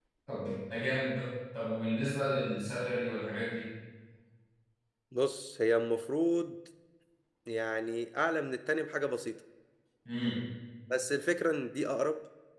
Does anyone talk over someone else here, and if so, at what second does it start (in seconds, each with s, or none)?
none